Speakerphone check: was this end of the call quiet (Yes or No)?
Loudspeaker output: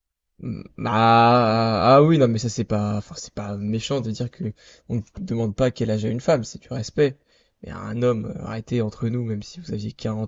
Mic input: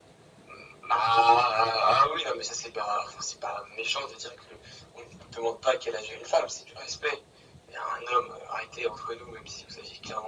Yes